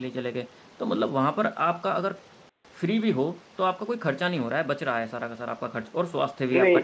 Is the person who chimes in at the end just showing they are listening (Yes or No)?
Yes